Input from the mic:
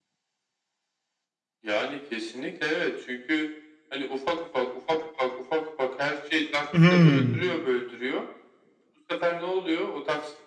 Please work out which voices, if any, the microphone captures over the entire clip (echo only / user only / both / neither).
both